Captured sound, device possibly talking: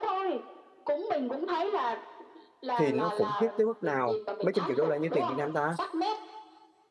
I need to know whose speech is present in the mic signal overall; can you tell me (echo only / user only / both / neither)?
both